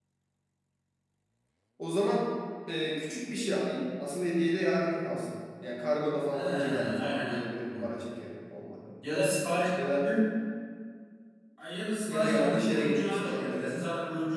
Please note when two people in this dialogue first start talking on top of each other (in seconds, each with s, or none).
6.3 s